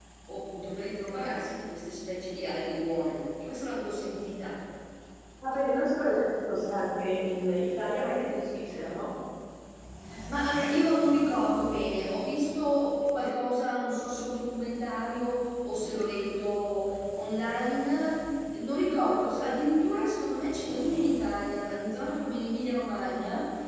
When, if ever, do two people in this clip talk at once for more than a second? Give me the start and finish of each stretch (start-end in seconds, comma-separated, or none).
none